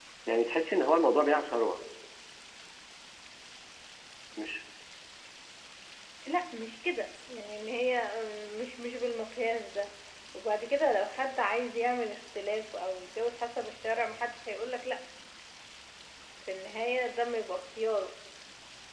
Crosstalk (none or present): none